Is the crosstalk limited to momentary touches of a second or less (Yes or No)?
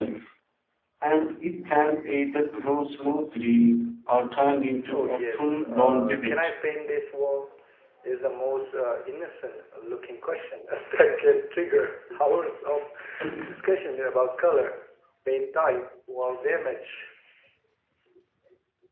No